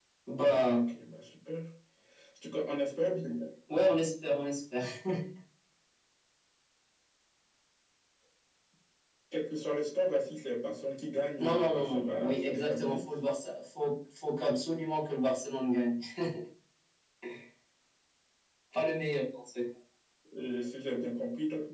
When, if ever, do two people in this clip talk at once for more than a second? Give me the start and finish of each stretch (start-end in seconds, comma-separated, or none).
11.4-13.0